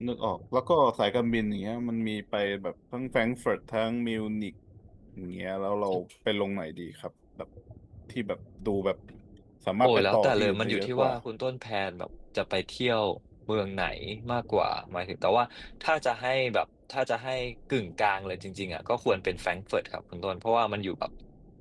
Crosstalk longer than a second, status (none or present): present